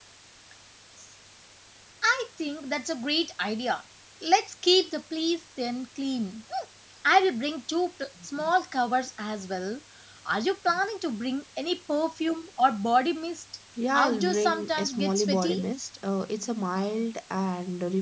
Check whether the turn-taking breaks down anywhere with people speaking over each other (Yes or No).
Yes